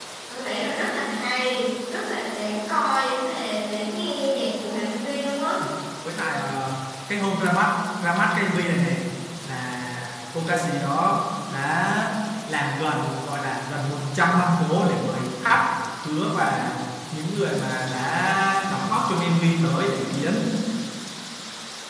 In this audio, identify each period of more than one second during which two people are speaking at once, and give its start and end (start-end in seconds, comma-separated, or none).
none